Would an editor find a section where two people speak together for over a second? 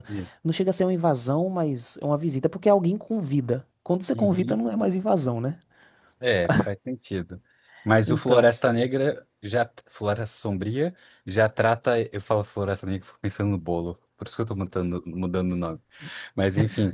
No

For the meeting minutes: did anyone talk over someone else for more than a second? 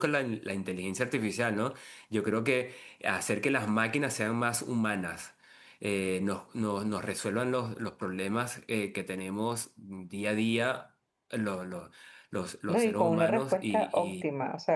Yes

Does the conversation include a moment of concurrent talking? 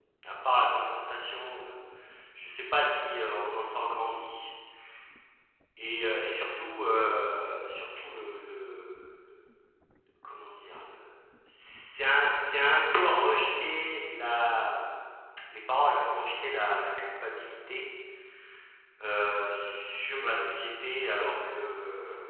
No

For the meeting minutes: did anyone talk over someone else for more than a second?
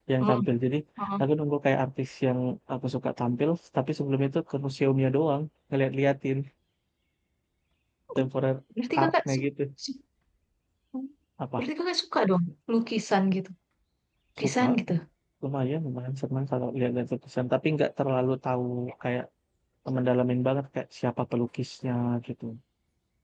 No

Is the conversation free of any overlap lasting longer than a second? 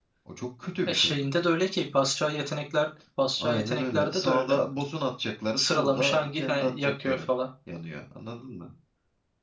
No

